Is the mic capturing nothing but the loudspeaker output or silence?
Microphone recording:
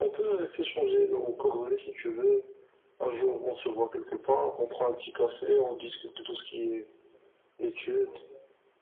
Yes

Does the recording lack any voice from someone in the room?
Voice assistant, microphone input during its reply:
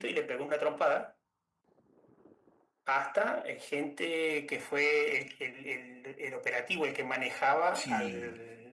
No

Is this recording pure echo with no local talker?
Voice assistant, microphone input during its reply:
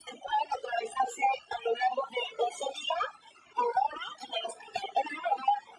Yes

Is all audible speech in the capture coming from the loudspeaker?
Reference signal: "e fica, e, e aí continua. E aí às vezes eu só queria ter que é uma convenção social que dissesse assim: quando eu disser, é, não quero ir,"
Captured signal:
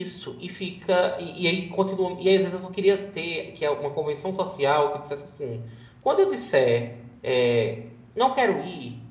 Yes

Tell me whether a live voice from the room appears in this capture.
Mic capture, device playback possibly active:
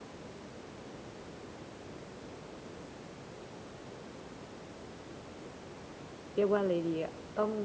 Yes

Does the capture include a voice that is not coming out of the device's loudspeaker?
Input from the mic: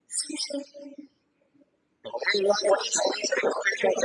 No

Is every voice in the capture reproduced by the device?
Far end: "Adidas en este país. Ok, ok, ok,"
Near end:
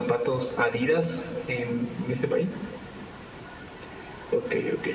Yes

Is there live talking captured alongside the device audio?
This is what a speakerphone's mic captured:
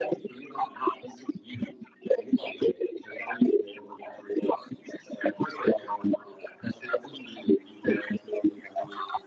No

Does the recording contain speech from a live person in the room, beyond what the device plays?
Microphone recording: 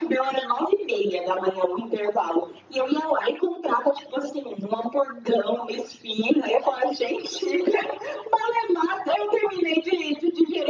No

